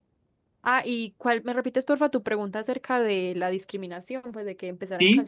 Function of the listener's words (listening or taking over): taking over